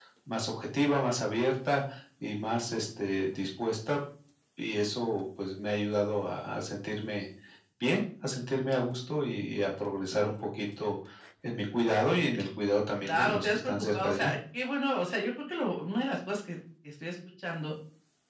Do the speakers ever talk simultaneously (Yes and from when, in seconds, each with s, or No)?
Yes, from 13.0 s